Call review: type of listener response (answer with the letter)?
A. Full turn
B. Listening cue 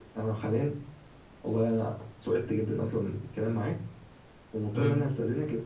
B